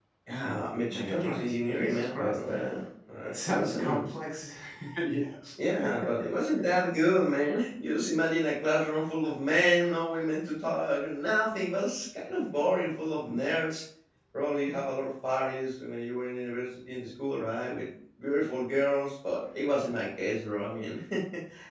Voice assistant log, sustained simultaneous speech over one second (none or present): present